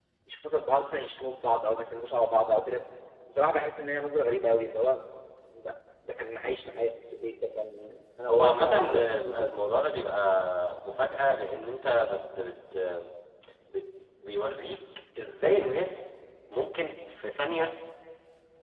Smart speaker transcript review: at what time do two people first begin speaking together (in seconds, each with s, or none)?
8.3 s